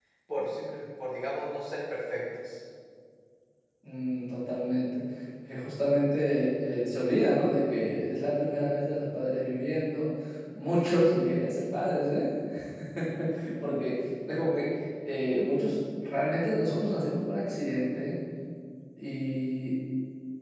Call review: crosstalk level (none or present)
none